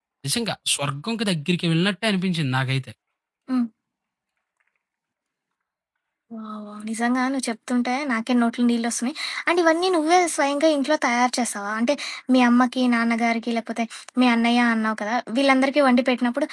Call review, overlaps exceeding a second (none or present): none